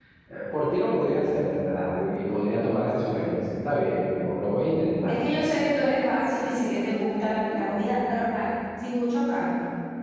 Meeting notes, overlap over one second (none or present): none